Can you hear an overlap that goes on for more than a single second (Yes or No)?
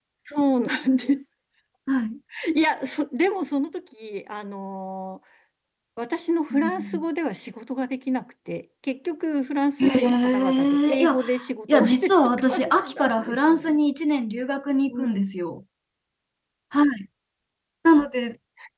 Yes